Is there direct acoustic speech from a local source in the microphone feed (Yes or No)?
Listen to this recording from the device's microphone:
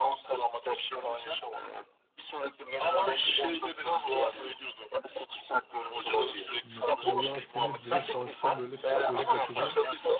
Yes